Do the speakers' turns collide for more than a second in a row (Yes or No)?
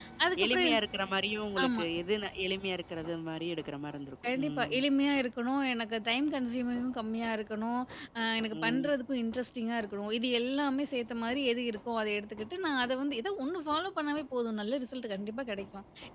No